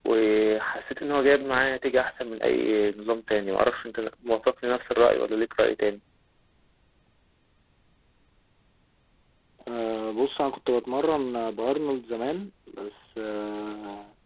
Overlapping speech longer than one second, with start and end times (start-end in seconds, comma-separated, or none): none